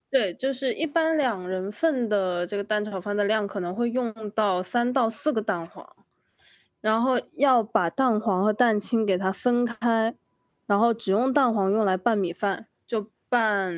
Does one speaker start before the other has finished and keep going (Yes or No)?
No